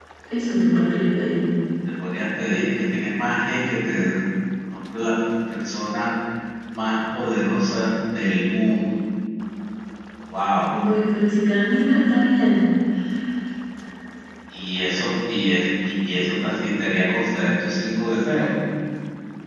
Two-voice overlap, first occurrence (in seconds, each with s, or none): none